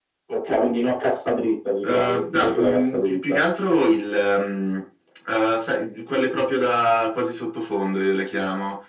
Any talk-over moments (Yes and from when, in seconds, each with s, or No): Yes, from 1.8 s